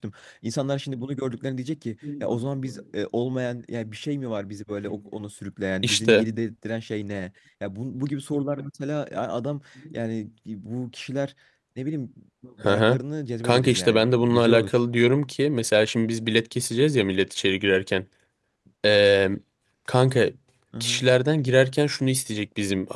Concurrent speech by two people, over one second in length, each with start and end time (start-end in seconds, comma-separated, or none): 13.4-14.8